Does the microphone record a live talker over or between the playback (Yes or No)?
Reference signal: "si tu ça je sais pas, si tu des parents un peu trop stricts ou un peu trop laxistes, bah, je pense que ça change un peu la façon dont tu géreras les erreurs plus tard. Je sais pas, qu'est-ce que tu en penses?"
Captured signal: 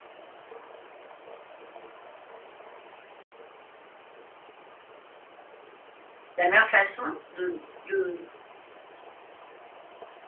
Yes